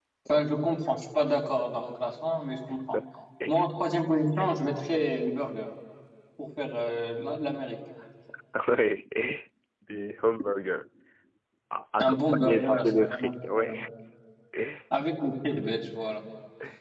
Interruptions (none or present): present